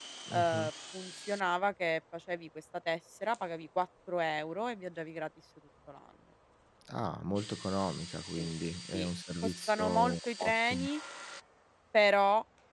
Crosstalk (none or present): present